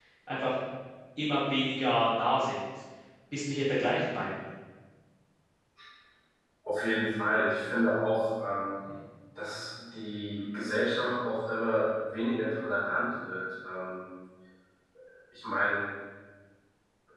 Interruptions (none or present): none